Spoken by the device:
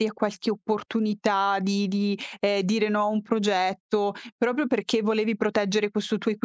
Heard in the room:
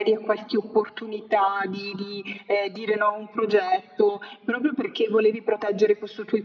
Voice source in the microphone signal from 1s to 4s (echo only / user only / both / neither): echo only